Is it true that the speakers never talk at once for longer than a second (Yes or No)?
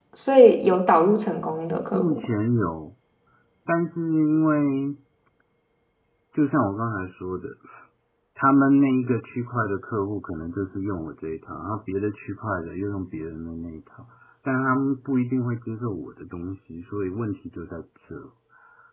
Yes